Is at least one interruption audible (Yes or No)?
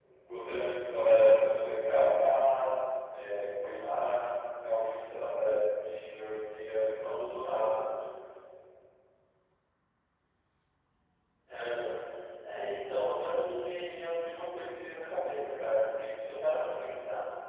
No